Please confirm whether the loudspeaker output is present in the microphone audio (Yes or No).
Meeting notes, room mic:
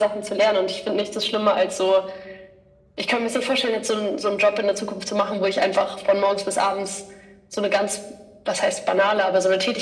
Yes